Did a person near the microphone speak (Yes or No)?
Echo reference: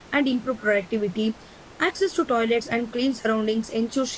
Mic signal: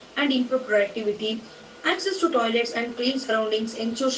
No